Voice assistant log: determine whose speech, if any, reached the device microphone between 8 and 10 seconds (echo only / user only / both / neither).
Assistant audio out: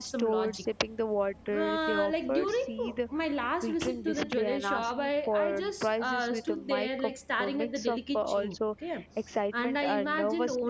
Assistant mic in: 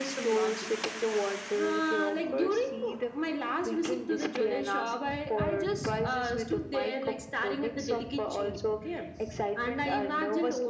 echo only